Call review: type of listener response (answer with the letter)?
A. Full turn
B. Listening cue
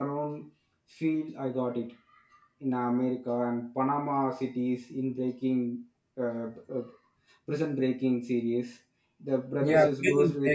A